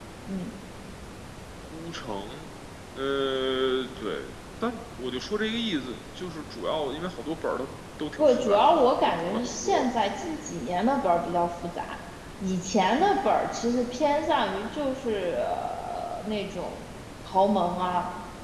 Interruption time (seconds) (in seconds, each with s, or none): 8.2 s